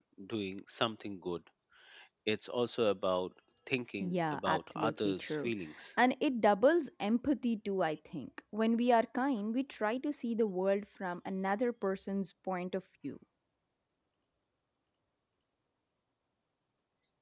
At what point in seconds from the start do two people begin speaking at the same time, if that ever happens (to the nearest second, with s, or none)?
4 s